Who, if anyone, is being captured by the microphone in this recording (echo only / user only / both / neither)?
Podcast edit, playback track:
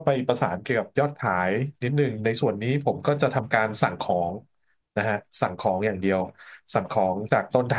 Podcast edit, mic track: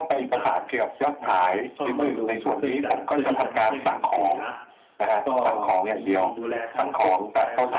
both